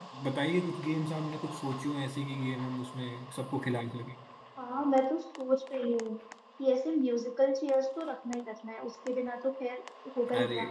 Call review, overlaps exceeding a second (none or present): none